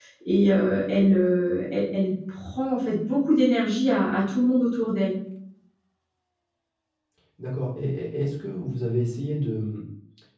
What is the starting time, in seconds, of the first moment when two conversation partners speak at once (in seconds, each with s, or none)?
none